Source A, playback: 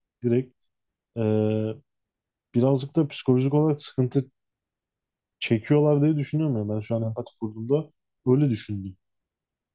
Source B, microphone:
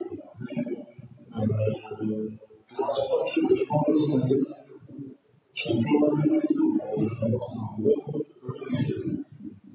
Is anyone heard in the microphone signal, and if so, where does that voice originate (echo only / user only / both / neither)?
echo only